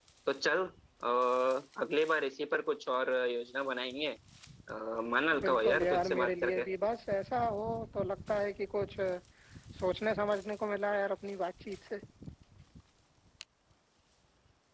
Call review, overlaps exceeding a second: present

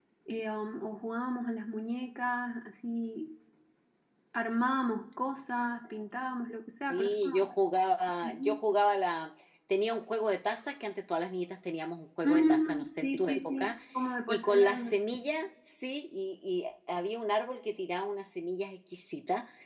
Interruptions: present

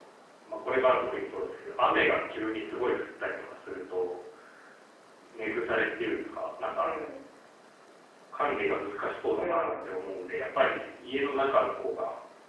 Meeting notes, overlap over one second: none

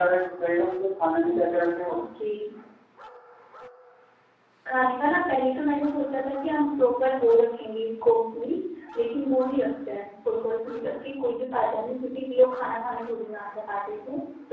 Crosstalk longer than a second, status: none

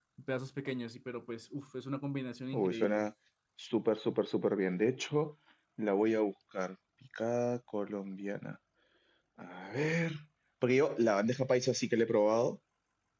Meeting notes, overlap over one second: none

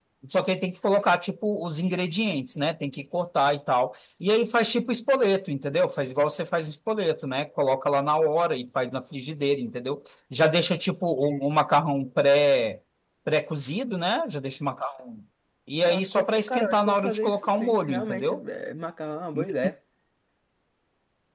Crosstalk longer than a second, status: present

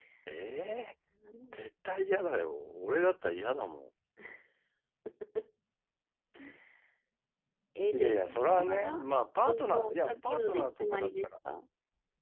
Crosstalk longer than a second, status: present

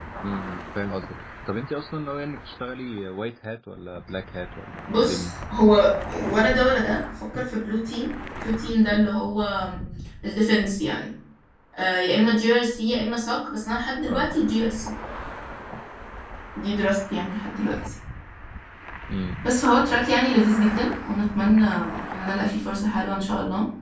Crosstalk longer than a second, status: none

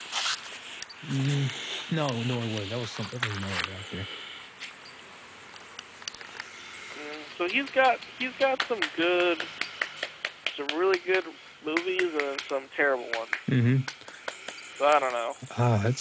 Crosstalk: none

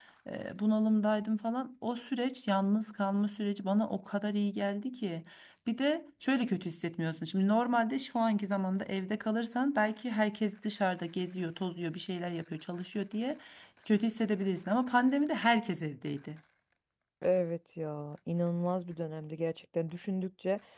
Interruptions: none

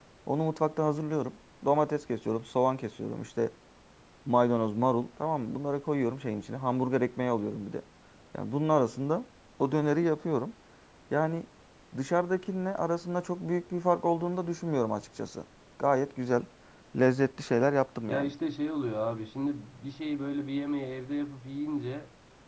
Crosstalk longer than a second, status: none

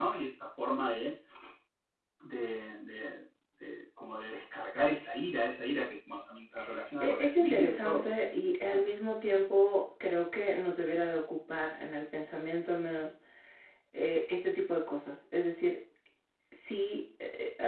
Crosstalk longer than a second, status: present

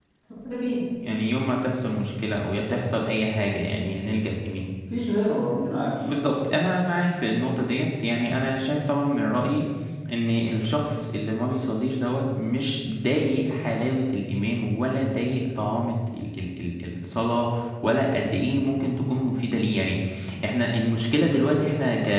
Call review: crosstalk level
none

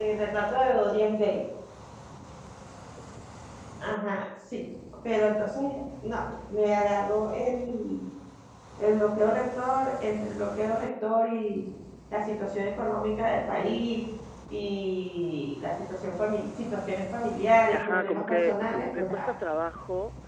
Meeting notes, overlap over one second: present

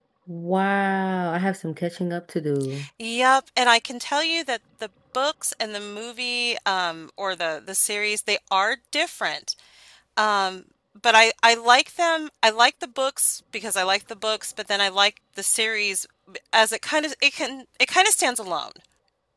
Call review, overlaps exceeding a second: none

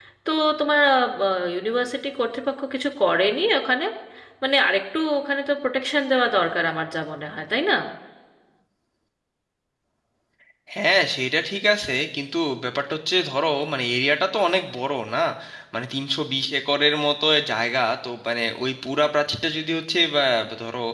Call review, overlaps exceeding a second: none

